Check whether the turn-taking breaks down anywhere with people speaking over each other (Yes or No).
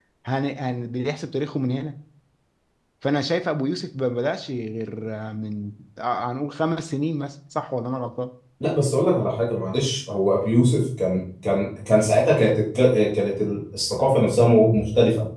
No